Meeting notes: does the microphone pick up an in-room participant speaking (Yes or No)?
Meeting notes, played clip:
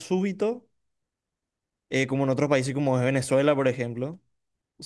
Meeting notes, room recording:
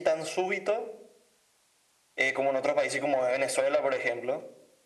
No